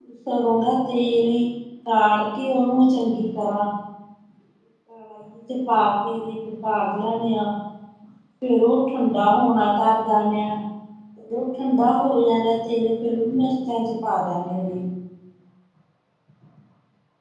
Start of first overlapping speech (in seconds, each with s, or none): none